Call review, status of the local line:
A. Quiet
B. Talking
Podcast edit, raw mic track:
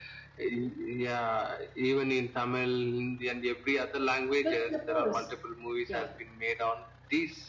B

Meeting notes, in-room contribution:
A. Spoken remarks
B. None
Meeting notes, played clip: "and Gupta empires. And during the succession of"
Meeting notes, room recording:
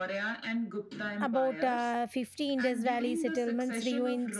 A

